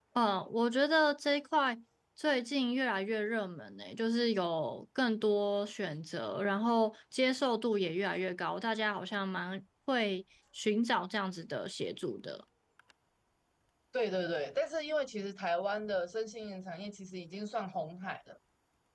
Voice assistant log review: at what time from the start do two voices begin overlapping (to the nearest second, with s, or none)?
none